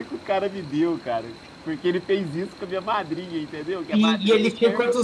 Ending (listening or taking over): taking over